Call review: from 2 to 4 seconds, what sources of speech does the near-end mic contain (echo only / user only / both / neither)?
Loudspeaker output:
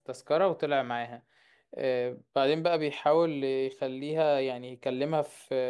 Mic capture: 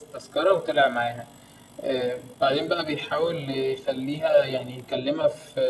echo only